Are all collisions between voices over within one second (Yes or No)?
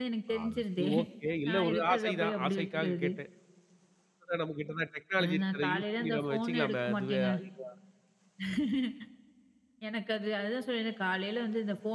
No